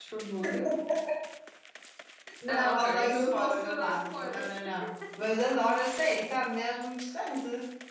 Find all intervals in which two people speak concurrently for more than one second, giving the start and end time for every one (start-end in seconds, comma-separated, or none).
2.5-4.5